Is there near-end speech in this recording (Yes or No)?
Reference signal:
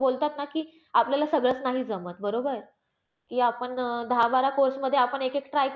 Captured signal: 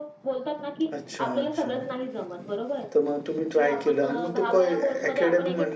Yes